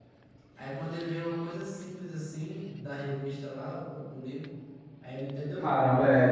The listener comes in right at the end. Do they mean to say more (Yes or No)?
Yes